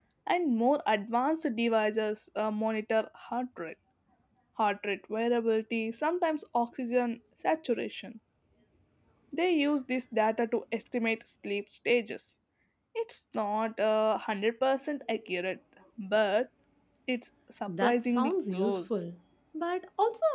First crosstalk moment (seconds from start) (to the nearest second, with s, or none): 18 s